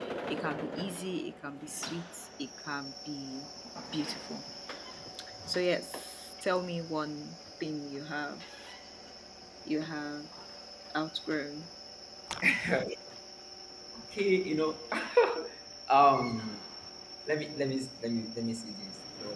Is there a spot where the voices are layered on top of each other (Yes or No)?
No